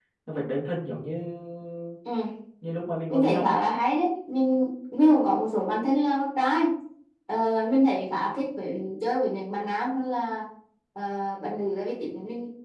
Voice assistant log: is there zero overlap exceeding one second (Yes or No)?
Yes